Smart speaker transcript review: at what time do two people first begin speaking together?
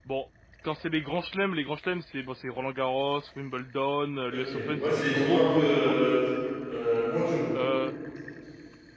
4.3 s

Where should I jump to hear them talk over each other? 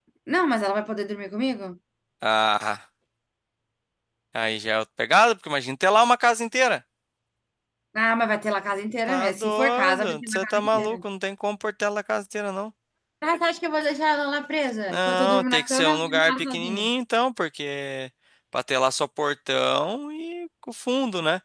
9.1 s

